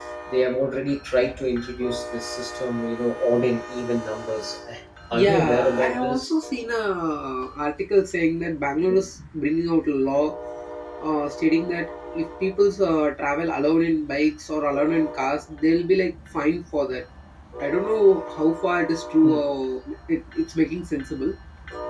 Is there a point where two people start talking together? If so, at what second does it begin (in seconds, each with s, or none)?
5.1 s